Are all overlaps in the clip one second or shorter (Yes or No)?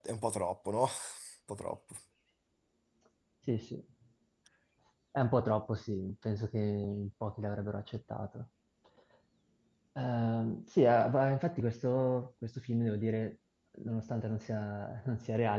Yes